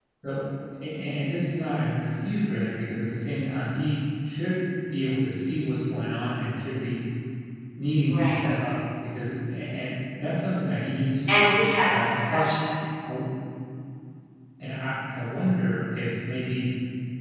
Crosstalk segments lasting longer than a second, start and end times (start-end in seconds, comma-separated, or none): none